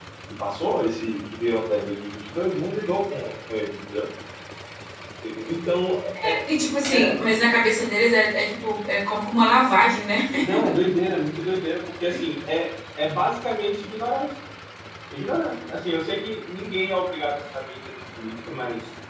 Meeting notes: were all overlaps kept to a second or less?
Yes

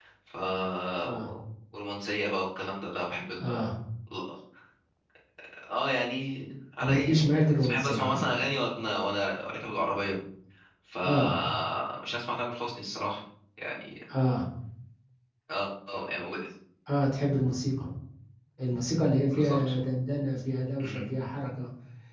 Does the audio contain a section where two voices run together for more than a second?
Yes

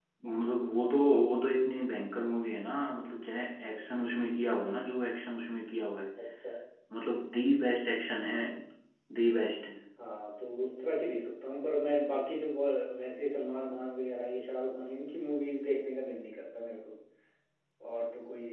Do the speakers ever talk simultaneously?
No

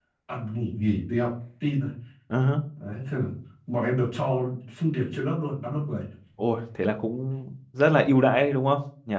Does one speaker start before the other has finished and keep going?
No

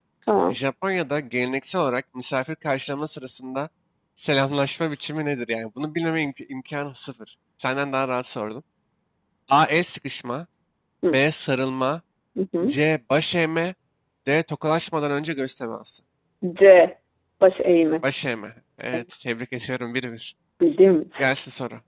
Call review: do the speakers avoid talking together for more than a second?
Yes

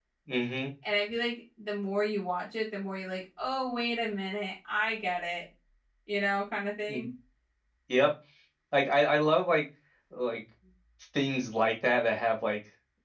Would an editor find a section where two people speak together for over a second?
No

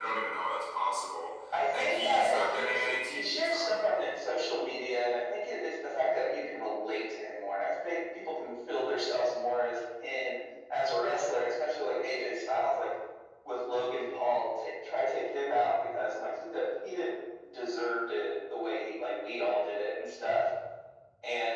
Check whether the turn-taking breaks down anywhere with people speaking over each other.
Yes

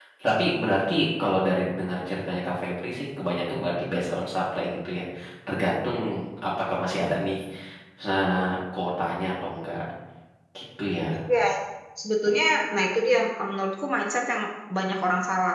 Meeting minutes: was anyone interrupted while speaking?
No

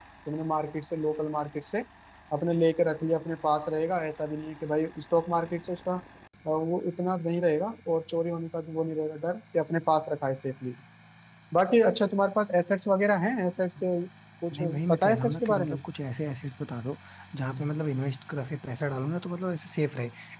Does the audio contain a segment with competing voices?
Yes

